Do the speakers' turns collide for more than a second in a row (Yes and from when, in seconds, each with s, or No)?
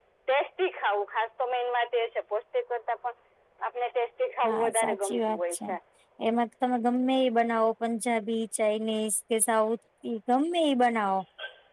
Yes, from 4.4 s